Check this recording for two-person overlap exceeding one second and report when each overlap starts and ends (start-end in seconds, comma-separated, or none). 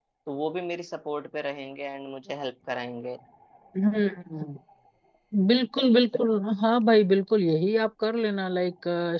none